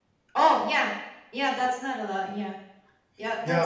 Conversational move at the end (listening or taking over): taking over